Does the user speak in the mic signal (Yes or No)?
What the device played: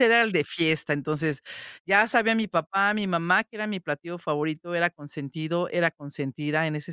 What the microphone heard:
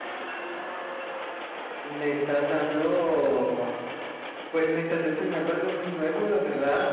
Yes